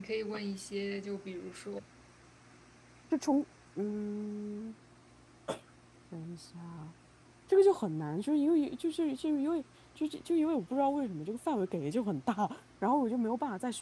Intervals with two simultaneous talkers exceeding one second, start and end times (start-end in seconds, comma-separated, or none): none